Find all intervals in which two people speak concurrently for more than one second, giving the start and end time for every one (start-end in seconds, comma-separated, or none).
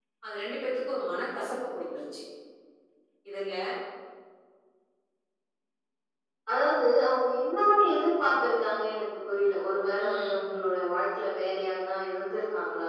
none